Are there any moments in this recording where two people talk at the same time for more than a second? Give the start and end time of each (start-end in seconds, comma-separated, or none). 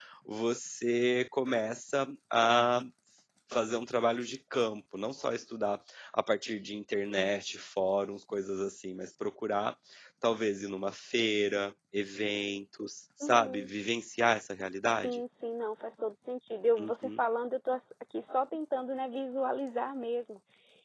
none